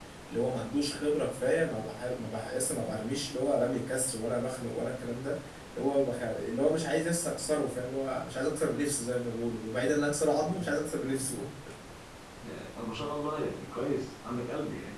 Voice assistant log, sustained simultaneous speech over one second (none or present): none